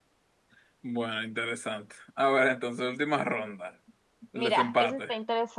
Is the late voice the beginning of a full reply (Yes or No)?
Yes